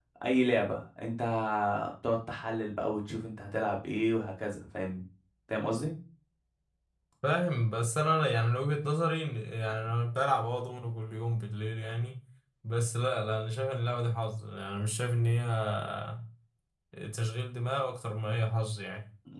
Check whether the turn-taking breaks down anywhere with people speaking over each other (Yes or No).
No